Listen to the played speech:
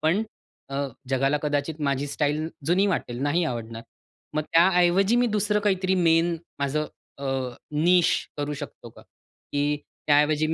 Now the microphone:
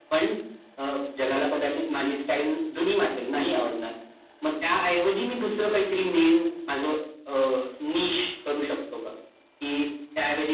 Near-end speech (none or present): none